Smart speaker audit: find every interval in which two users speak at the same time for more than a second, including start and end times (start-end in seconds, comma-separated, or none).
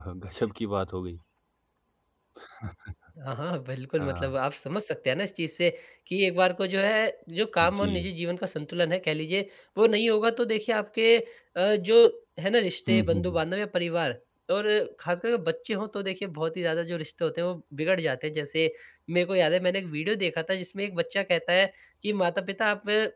none